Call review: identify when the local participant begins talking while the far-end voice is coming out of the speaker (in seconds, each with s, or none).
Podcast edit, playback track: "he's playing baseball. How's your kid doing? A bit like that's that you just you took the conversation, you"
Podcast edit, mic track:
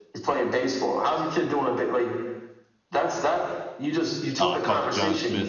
4.4 s